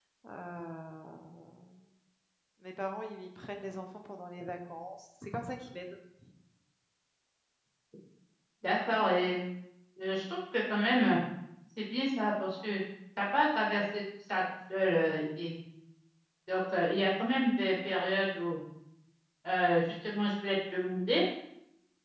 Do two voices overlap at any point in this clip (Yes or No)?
No